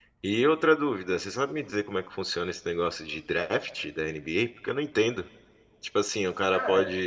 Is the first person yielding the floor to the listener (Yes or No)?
No